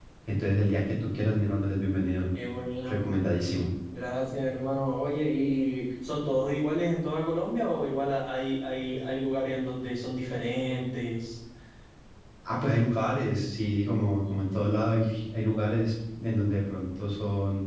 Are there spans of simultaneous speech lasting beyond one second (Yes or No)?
No